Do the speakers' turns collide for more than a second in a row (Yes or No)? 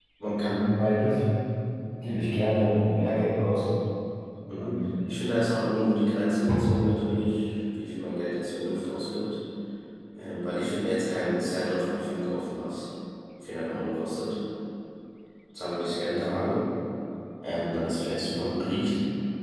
No